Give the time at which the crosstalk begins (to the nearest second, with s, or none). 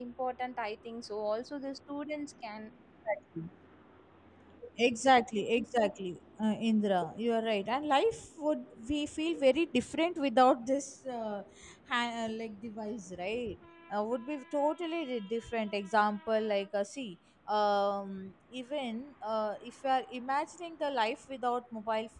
none